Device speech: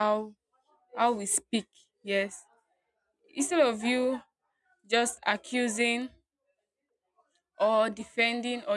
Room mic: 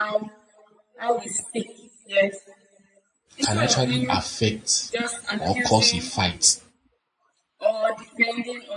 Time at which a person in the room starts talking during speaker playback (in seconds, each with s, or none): 3.4 s